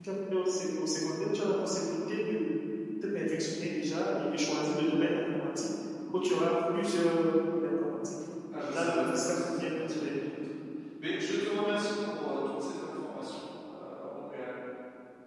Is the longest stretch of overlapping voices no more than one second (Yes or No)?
No